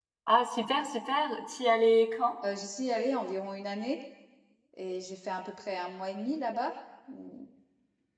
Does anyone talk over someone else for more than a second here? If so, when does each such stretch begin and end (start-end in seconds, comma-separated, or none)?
none